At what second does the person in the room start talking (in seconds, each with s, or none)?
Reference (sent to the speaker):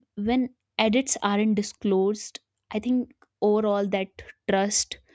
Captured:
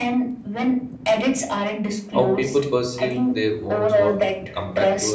2.1 s